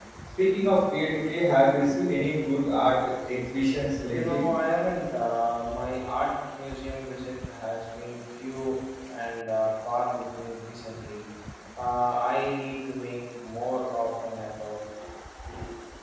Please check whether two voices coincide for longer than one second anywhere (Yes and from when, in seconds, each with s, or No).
No